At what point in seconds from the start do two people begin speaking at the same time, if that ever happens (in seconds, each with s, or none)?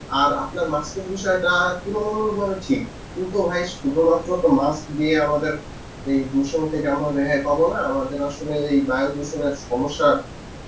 none